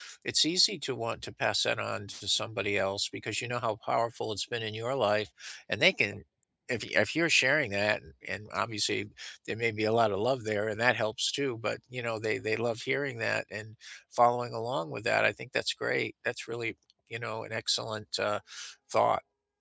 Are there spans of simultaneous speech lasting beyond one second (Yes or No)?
No